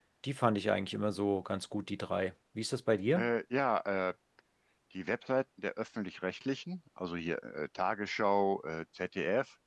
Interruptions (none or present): none